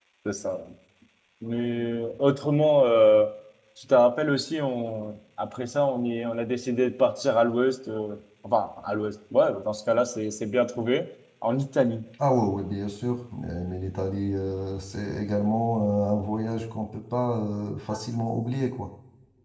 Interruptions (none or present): none